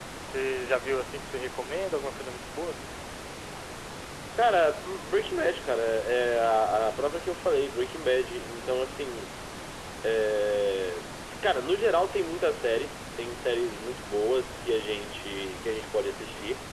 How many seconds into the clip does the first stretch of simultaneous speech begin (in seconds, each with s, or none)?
none